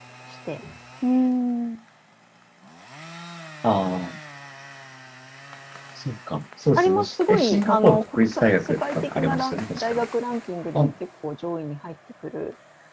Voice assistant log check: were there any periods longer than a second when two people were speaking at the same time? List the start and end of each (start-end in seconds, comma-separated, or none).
6.8-10.0